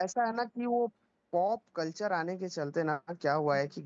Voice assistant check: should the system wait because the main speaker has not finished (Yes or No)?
Yes